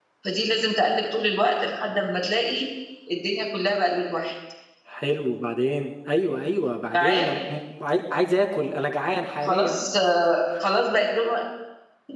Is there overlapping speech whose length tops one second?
No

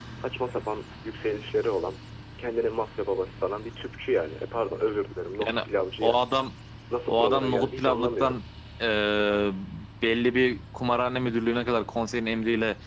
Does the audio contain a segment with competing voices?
Yes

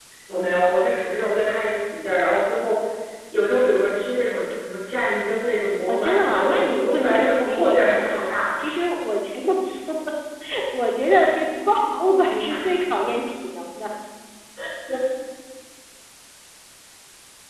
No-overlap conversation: No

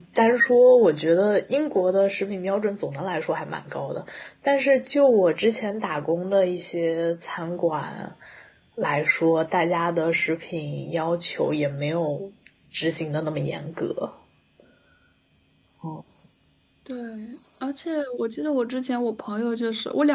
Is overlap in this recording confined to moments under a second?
Yes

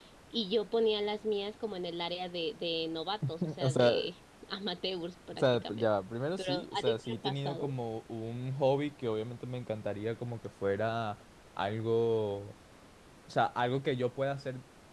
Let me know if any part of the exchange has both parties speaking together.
Yes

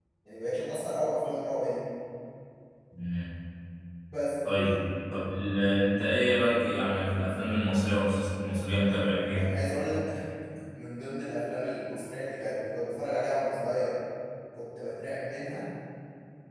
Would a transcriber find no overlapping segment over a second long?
Yes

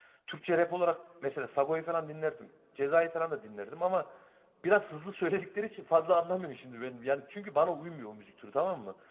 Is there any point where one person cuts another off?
No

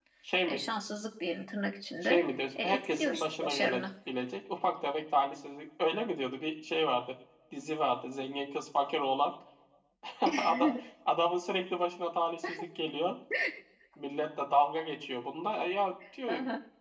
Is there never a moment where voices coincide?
No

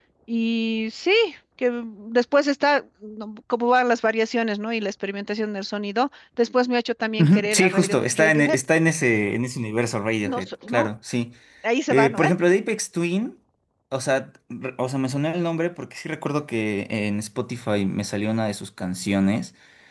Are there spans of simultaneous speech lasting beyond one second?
Yes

